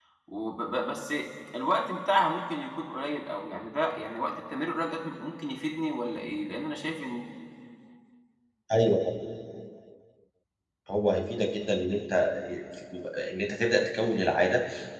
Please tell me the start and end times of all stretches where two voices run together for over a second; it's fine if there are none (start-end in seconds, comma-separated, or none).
none